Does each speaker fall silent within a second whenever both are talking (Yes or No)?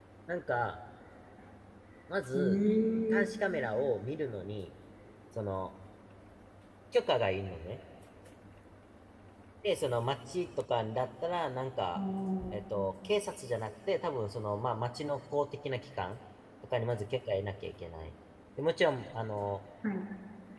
Yes